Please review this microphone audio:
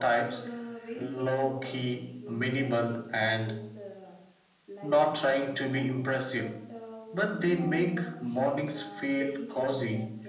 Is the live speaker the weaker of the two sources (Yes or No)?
Yes